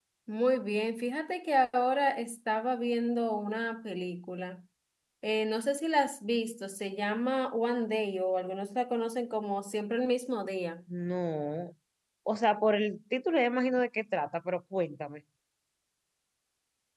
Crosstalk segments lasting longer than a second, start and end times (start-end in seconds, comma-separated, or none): none